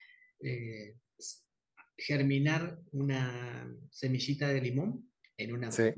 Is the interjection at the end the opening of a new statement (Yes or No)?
No